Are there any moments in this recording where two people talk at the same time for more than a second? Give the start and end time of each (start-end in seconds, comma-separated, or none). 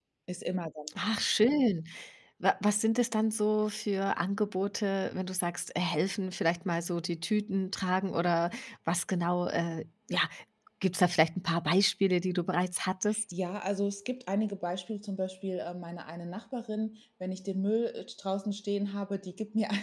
none